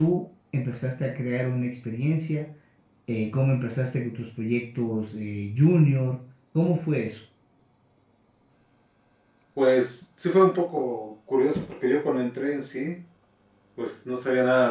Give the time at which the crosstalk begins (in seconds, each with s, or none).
none